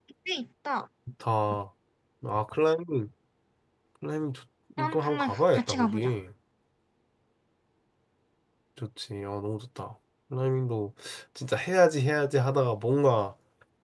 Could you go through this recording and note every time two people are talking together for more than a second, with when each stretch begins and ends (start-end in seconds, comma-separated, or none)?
4.8-6.1